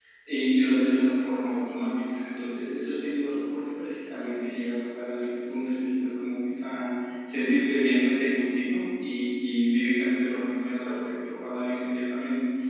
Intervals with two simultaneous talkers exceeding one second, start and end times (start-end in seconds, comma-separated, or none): none